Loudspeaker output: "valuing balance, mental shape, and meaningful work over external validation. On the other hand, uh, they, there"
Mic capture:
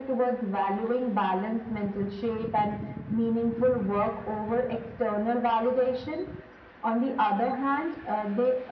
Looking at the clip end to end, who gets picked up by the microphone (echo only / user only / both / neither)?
echo only